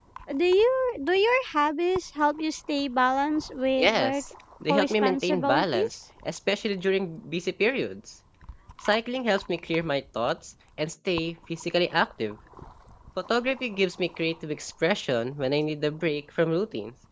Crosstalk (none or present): present